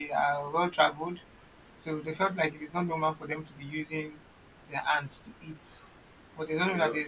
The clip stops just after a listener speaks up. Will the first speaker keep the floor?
Yes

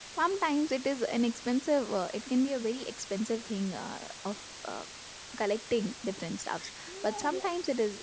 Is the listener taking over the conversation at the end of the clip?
No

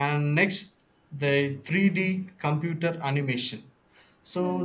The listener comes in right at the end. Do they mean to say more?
No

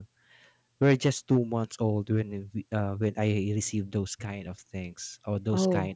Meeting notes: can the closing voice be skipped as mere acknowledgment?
Yes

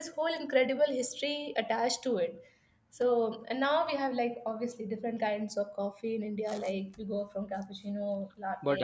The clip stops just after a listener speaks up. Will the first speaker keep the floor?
No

